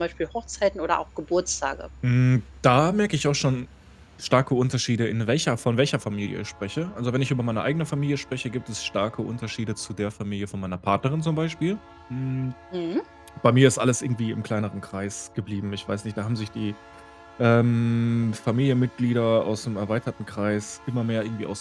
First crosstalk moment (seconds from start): none

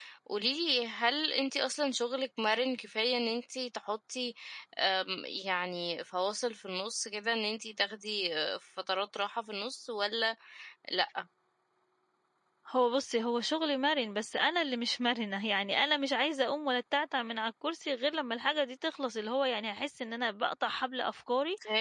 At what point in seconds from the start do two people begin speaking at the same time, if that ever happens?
none

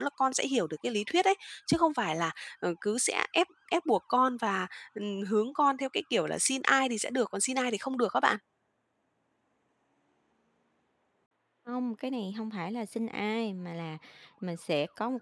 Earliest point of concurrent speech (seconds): none

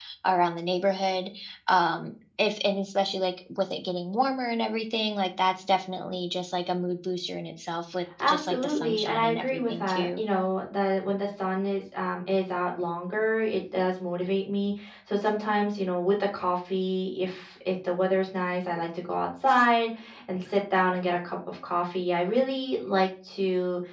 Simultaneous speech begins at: 8 s

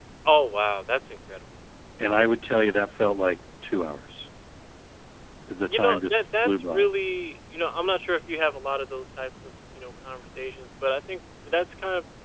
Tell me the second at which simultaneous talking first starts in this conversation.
6 s

